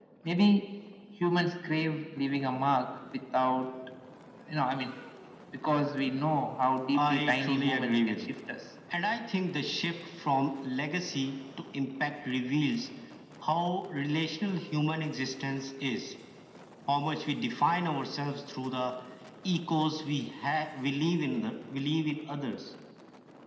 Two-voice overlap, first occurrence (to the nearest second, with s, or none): 7 s